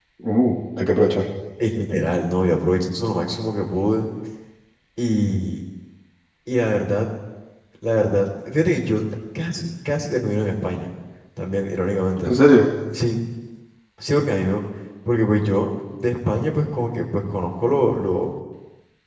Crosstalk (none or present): none